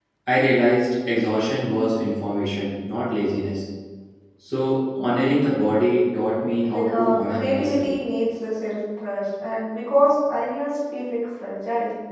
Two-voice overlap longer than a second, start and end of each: 6.6-7.9

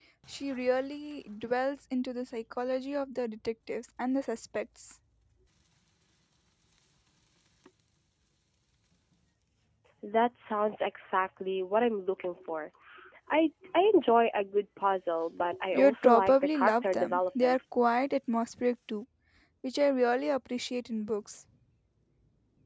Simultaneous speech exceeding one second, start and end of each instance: 15.7-17.6

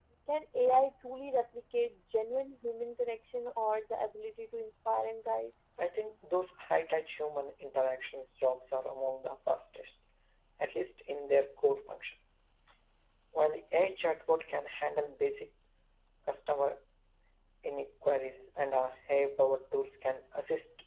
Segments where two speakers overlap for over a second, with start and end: none

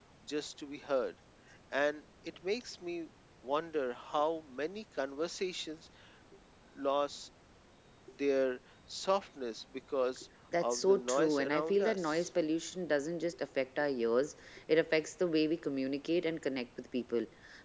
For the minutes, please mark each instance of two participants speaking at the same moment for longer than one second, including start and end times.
10.6-12.3

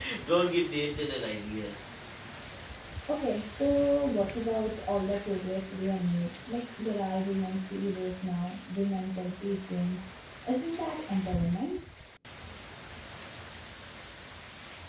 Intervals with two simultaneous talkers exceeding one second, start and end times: none

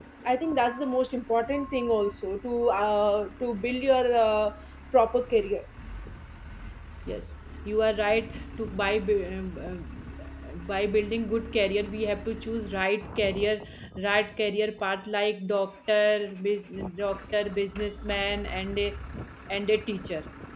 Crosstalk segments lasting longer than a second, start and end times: none

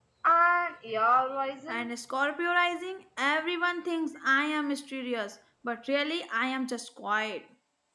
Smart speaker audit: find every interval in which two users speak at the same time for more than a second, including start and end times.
none

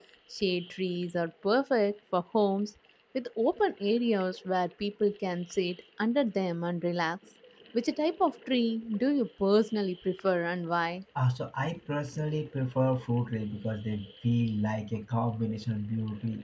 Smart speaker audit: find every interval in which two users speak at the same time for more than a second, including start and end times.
none

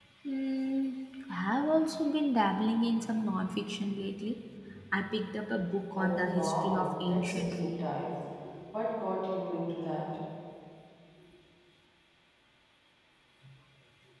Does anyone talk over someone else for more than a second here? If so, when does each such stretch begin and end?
5.9-7.7

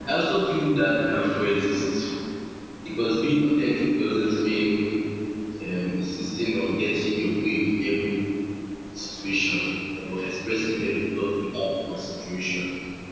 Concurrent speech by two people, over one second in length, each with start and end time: none

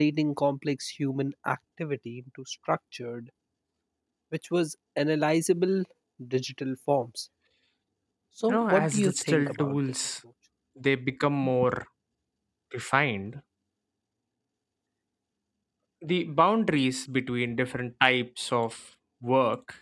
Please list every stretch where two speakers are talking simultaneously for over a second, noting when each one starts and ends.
8.5-10.0

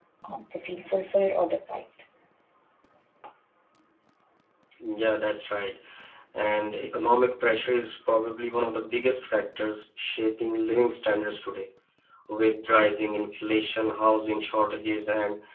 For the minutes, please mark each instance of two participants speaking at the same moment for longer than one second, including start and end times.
none

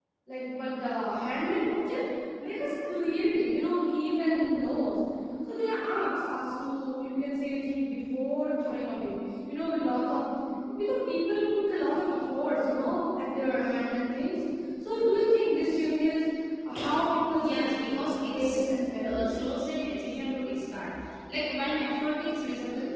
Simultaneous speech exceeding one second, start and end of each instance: 17.3-18.6

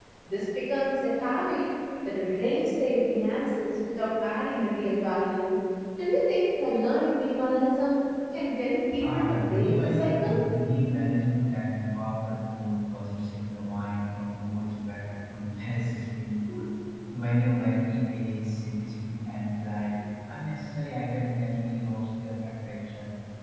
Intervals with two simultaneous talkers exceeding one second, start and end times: 9.0-10.3

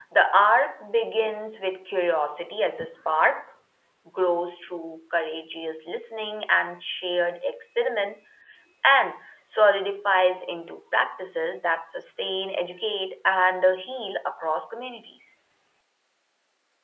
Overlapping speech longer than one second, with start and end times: none

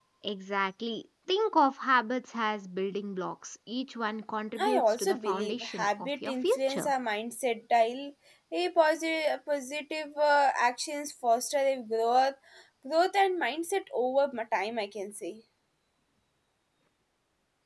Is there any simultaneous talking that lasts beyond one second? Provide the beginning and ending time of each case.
4.6-6.9

